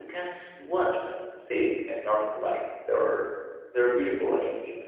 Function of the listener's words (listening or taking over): listening